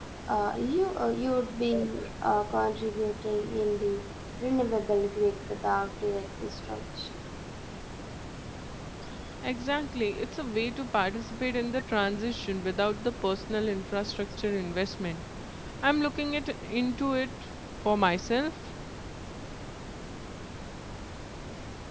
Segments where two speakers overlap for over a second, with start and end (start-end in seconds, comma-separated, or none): none